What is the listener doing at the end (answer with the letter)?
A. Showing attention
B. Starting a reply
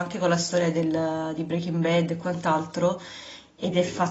A